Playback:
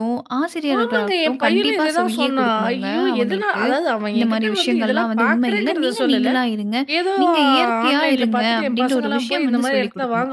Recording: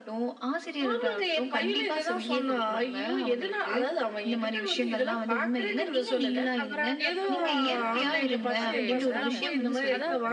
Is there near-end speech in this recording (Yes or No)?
Yes